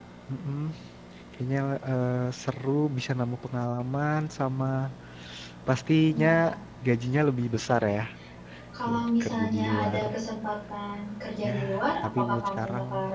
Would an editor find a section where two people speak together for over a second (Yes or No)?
Yes